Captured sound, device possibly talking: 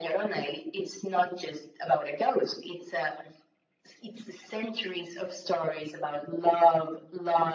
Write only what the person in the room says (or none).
none